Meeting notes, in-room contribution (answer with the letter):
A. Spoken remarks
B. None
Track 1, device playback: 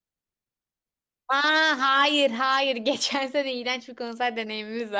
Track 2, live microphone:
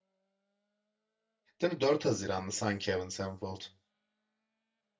A